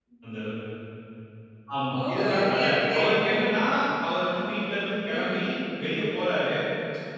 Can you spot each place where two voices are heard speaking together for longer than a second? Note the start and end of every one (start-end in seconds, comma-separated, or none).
2.0-3.5